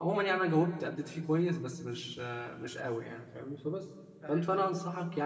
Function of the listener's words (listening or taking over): listening